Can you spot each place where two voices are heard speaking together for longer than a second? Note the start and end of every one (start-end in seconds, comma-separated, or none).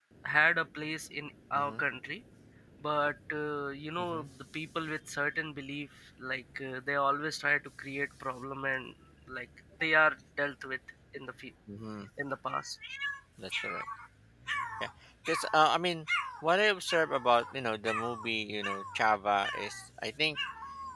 none